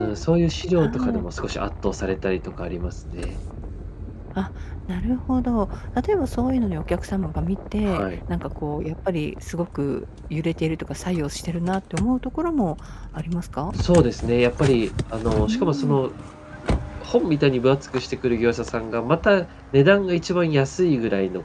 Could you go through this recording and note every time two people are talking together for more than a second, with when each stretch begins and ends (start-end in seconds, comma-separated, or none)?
none